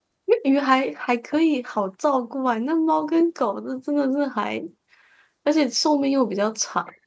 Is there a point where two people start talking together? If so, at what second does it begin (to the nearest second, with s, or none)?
none